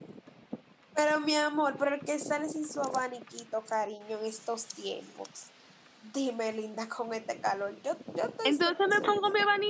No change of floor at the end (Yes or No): No